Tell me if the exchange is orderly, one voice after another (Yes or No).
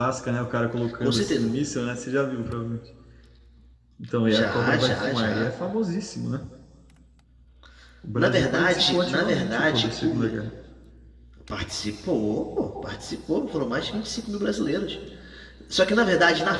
No